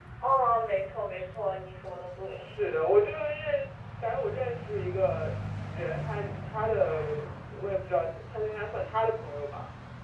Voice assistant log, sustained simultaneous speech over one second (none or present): none